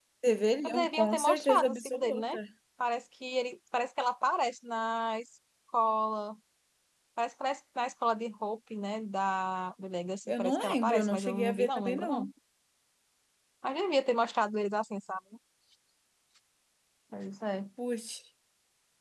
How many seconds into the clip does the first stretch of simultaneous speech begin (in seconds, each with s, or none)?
0.7 s